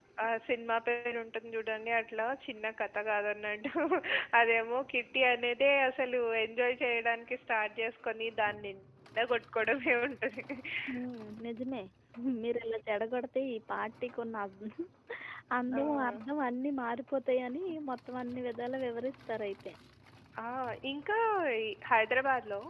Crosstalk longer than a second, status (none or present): none